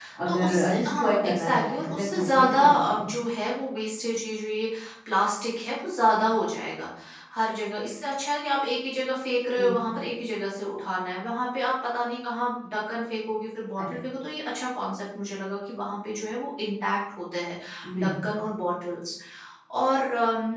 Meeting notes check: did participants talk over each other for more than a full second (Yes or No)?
Yes